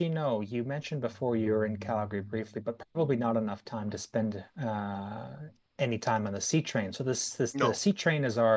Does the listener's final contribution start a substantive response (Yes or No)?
No